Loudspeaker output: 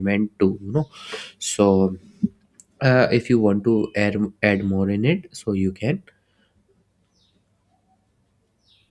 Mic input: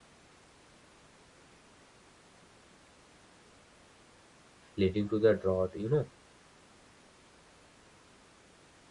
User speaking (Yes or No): Yes